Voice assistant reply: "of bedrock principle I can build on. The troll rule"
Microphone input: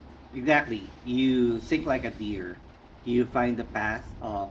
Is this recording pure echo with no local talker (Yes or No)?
No